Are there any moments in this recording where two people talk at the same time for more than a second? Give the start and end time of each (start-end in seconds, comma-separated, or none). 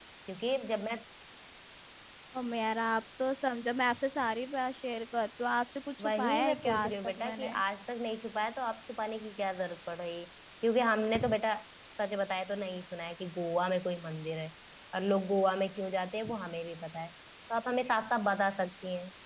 6.0-7.6